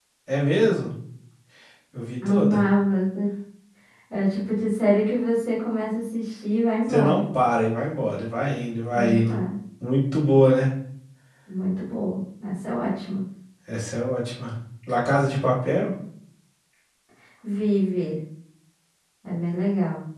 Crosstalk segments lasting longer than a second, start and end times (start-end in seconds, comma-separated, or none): none